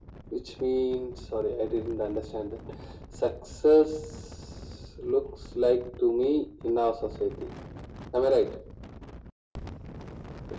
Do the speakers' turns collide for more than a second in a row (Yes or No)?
No